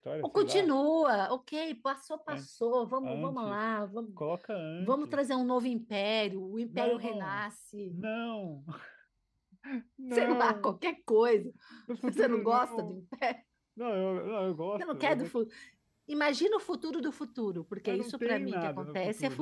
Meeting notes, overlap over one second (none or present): present